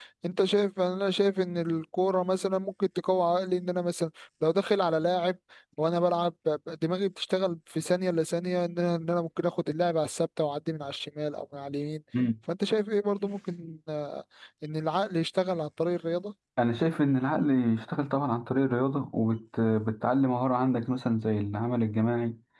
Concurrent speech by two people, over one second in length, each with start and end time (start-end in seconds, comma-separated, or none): none